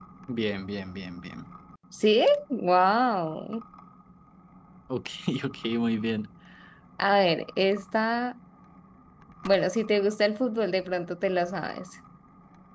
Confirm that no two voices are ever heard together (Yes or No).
Yes